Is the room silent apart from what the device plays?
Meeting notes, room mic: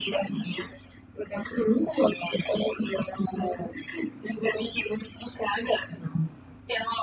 Yes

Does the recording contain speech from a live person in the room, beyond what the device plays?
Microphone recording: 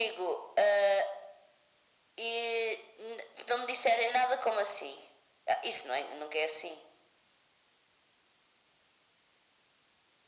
No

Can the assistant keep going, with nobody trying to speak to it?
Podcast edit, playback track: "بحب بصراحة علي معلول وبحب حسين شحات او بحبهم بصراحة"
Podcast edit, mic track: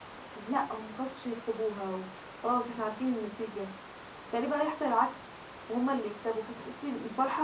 No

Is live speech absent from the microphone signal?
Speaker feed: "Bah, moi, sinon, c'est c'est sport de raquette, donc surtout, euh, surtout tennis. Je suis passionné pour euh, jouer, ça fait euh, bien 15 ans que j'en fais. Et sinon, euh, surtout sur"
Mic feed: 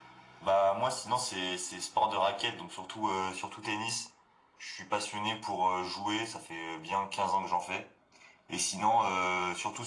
Yes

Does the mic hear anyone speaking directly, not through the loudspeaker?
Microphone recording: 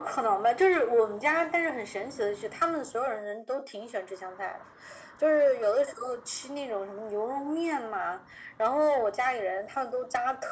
No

